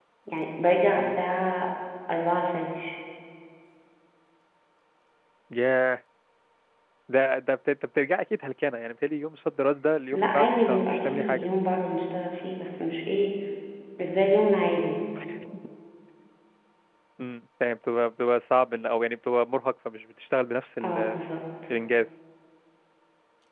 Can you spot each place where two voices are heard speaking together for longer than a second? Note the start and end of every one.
10.1-11.5

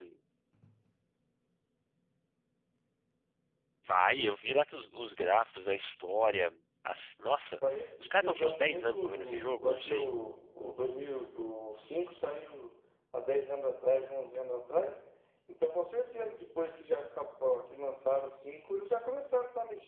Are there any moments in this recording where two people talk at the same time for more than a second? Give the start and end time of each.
7.7-10.1

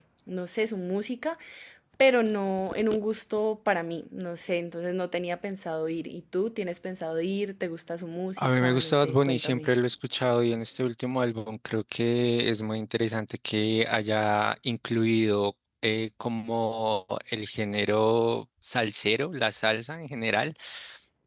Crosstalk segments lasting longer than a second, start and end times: 8.4-9.7

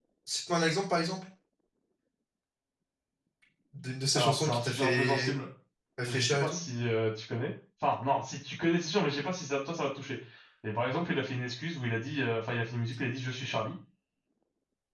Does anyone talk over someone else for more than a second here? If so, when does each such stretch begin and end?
4.2-5.3

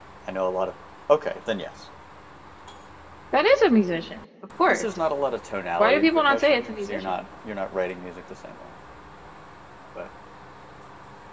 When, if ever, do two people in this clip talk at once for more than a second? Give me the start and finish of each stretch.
5.8-7.1

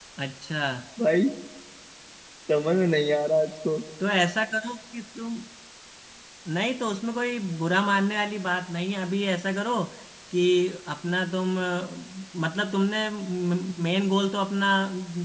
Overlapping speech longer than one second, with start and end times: none

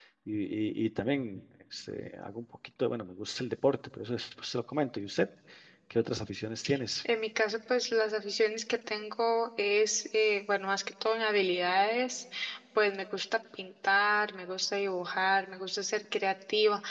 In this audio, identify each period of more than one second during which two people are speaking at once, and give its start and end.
none

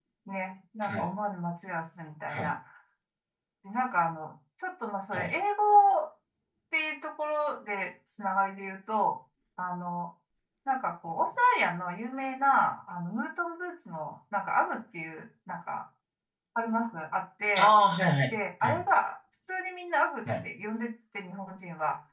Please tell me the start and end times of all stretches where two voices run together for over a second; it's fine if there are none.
none

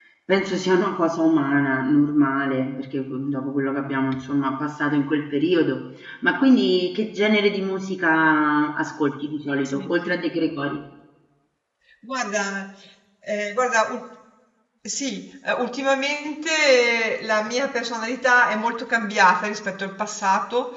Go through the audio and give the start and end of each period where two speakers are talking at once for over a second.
none

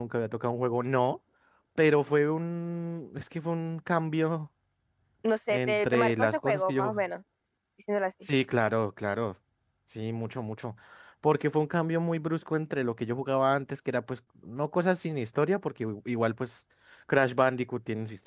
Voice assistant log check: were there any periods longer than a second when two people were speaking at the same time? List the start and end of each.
5.5-6.9

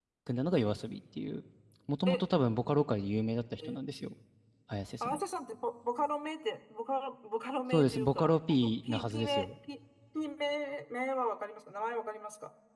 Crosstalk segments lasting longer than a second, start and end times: 7.7-9.5

